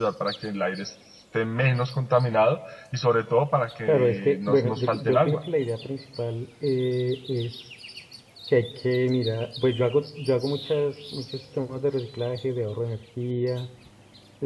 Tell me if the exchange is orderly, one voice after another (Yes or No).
No